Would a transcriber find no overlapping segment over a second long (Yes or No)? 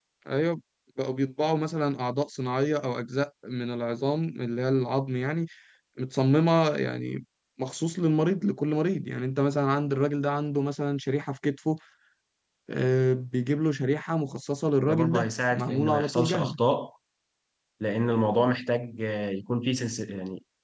No